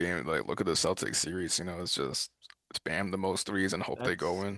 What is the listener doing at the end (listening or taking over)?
taking over